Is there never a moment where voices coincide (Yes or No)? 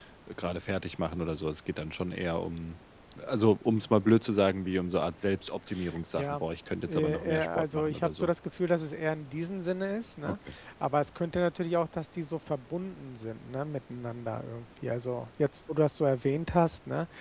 No